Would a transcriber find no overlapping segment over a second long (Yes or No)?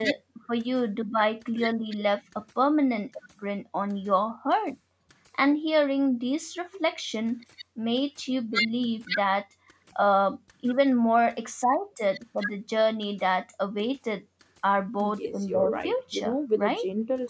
No